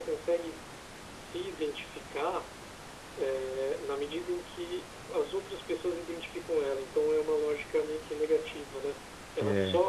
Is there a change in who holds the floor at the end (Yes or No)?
No